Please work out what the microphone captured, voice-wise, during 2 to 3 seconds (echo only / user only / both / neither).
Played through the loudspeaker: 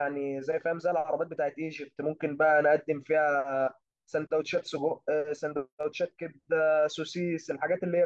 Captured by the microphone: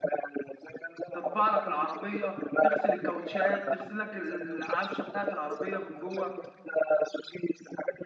both